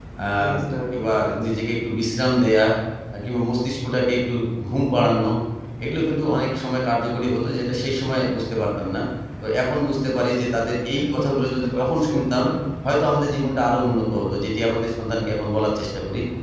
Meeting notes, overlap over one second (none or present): present